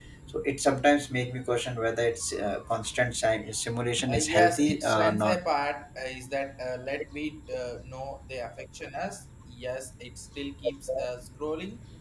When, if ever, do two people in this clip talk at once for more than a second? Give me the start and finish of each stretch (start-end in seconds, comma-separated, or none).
4.1-5.4